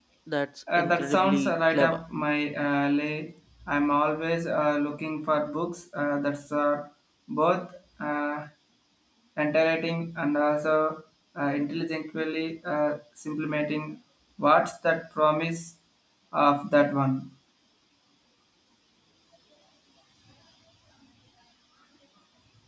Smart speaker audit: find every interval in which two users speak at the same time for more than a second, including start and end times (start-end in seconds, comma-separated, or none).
0.8-2.0